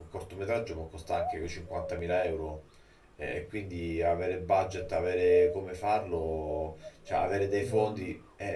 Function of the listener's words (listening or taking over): listening